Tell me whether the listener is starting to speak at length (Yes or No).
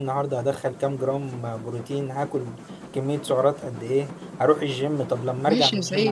Yes